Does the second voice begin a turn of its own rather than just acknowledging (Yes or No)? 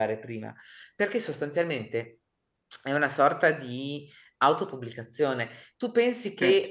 No